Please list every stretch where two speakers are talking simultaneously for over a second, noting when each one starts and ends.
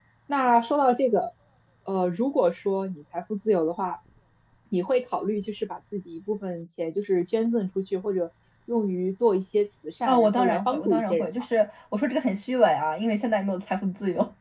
10.1-11.4

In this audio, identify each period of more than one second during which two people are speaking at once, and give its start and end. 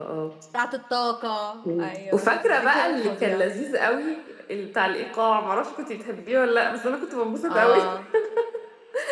1.8-3.5

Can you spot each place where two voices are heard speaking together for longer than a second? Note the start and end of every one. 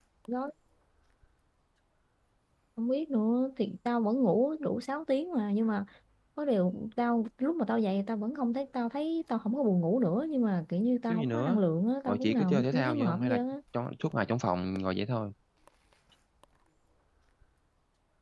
12.1-13.4

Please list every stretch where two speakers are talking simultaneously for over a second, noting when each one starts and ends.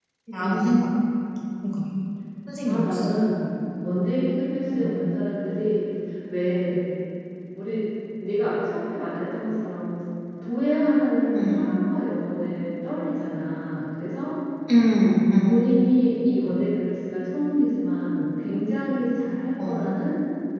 none

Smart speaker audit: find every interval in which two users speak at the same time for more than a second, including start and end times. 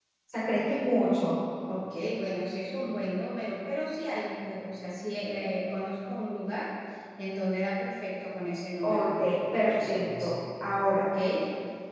8.8-10.3

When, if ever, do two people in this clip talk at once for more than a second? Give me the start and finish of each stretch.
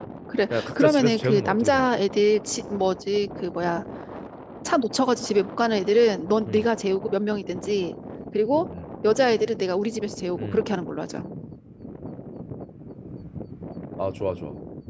0.5-1.9

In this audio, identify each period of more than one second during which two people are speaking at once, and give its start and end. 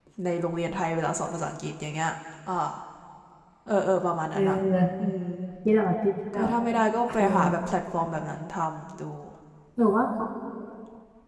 none

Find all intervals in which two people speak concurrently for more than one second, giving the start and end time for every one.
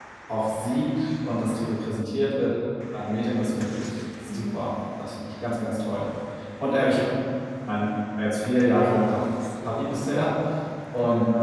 none

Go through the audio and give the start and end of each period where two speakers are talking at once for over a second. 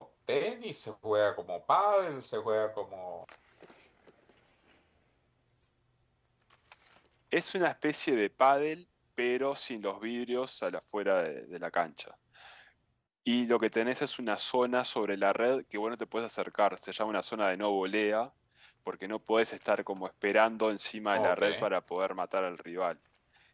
none

